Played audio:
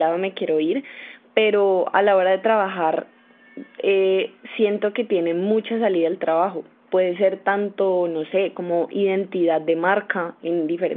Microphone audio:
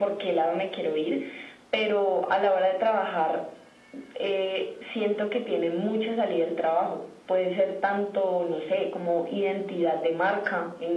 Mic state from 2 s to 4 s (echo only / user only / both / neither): echo only